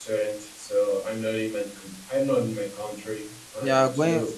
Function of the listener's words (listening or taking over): taking over